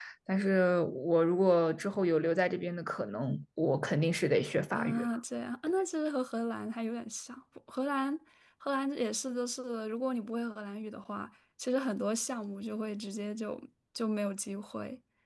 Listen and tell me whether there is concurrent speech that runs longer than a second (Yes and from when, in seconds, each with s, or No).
No